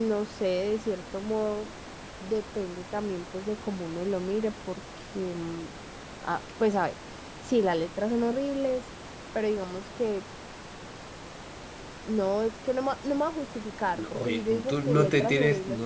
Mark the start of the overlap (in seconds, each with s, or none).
13.9 s